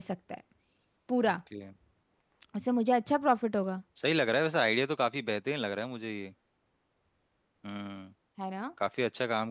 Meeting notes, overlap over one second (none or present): none